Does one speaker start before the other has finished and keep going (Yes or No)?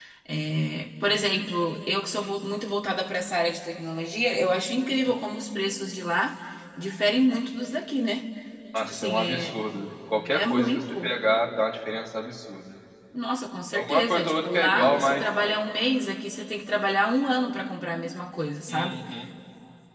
Yes